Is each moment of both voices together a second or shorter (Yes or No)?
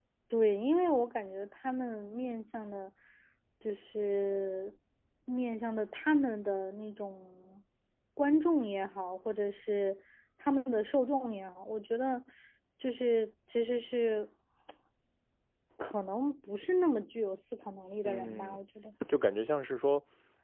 Yes